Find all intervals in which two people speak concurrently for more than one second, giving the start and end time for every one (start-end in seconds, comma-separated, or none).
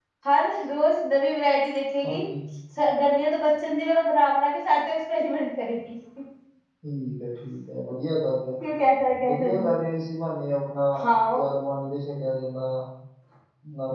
none